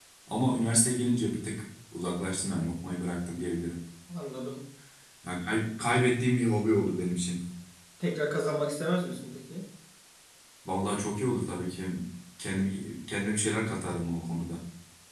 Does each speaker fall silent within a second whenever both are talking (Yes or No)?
Yes